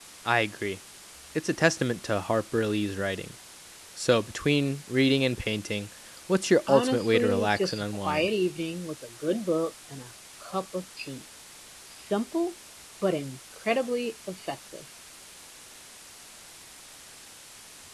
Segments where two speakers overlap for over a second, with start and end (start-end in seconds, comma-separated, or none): 6.7-8.3